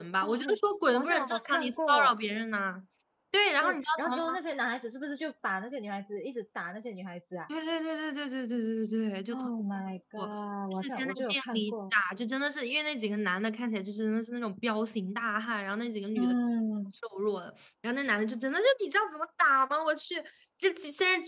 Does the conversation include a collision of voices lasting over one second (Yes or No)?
Yes